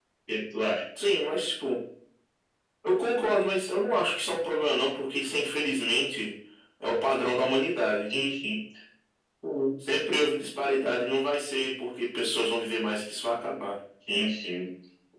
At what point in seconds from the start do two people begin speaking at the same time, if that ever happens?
none

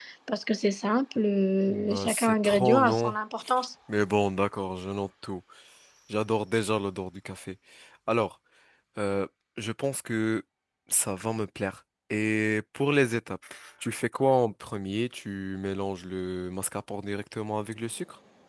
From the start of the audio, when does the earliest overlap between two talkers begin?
1.7 s

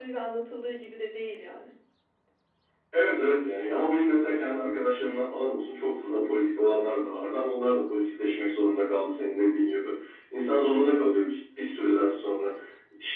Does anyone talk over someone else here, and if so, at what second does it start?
none

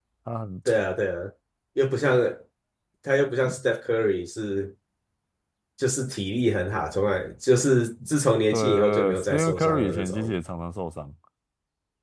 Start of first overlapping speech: 8.5 s

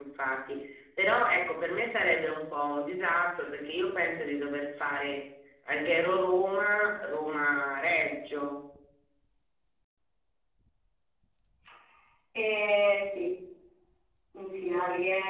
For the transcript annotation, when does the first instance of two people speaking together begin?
none

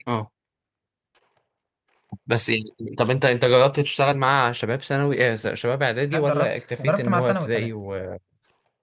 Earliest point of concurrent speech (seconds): 6.1 s

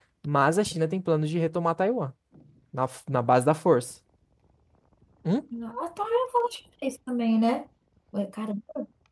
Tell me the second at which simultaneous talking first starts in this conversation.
none

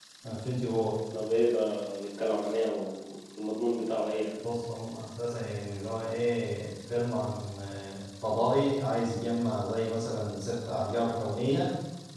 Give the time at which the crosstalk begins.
none

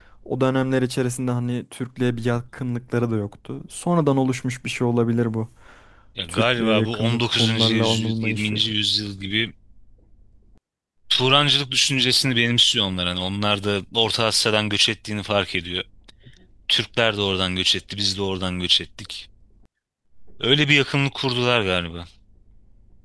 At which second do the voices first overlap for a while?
6.3 s

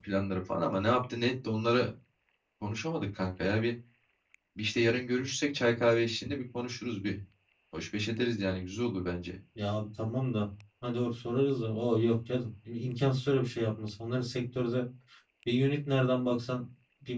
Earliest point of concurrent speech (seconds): none

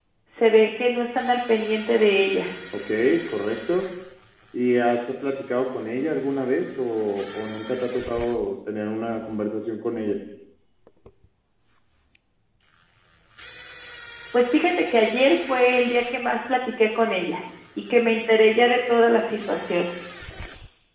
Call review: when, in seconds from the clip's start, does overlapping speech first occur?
none

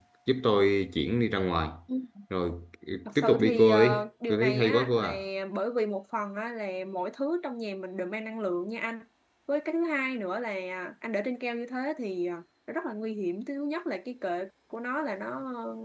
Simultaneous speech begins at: 3.1 s

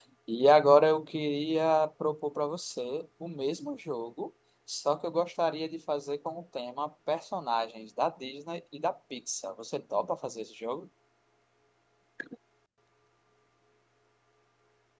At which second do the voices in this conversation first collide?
none

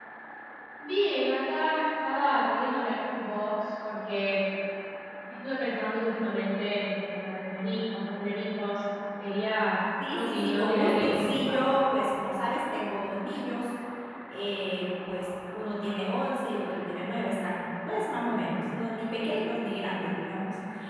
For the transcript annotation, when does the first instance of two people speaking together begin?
10.0 s

